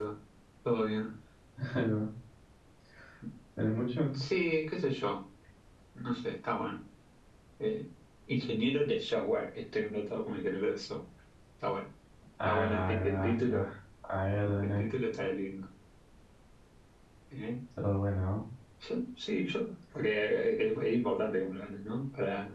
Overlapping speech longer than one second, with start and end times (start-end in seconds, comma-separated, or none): 12.4-13.7